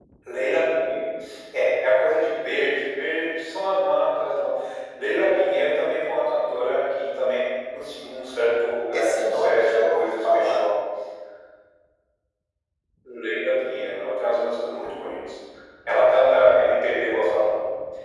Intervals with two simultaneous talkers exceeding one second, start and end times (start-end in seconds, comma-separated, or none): 8.9-10.7